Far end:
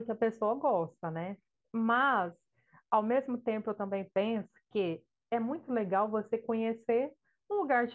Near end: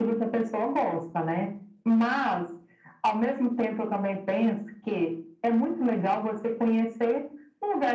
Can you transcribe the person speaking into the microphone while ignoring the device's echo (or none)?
none